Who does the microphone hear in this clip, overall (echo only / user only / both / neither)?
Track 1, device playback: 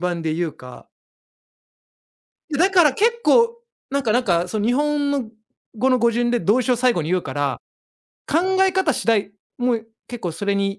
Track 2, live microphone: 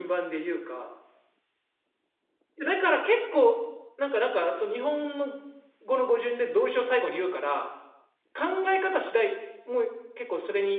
both